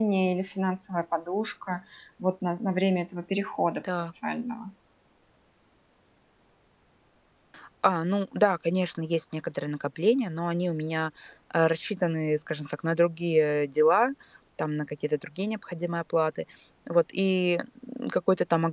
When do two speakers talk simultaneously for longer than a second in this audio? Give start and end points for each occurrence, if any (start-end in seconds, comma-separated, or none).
none